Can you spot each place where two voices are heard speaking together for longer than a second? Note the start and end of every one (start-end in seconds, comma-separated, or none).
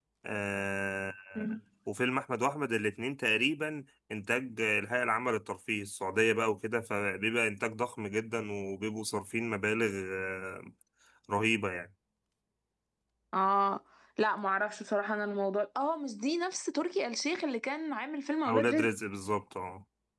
none